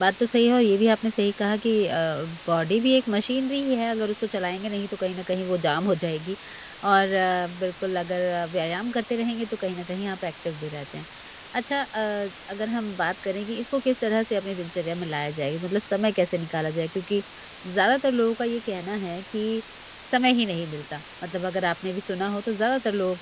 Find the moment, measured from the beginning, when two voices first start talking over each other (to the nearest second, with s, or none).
none